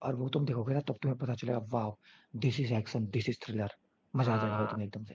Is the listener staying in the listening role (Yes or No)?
No